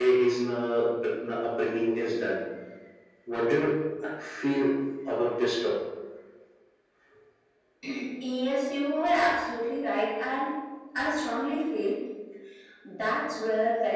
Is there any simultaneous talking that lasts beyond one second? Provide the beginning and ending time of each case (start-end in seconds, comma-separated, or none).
none